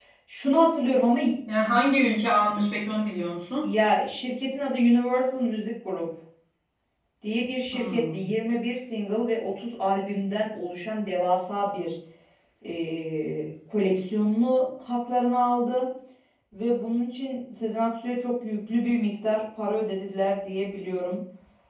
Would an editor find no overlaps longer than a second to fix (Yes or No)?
Yes